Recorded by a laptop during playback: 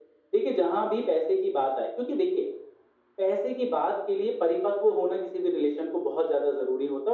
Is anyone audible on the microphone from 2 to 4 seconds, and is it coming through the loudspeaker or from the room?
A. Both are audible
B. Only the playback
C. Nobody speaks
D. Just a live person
B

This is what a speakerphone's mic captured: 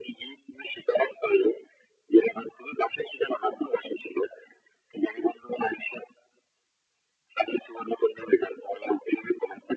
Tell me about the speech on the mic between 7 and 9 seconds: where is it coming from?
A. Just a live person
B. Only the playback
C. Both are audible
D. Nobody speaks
B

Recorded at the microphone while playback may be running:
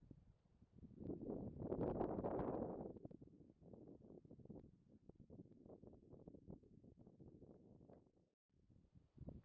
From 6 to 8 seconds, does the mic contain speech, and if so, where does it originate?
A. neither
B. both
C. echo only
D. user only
A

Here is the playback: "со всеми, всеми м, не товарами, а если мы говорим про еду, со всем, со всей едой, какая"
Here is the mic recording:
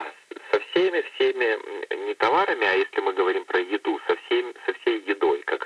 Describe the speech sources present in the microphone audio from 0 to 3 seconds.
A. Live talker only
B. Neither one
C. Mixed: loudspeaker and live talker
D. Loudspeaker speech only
D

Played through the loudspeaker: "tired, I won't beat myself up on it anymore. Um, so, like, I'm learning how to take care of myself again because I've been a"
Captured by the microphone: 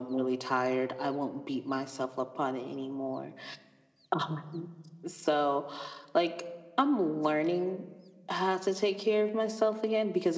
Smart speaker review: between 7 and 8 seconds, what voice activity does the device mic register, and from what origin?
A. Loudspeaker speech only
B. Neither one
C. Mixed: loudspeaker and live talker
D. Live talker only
A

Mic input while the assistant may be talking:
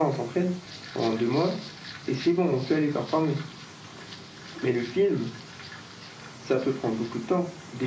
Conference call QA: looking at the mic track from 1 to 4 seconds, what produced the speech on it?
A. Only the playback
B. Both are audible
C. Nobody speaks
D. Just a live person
A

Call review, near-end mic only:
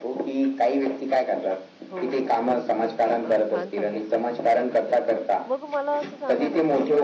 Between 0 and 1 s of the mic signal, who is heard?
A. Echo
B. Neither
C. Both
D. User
A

